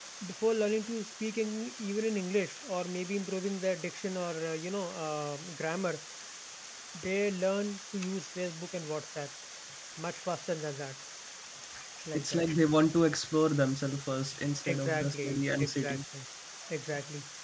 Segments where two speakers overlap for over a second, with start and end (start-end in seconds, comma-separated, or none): 14.7-16.0